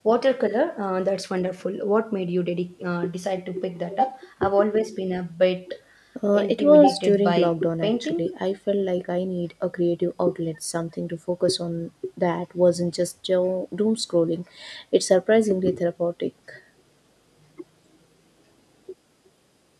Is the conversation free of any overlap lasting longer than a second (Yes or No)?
No